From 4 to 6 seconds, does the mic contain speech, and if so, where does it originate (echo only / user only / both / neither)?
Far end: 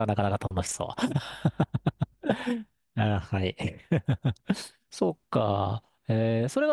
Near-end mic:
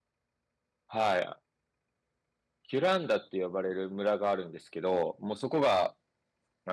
user only